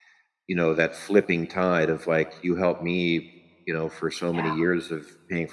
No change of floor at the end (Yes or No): Yes